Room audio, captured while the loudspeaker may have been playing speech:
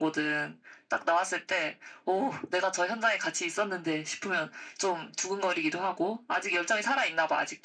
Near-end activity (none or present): none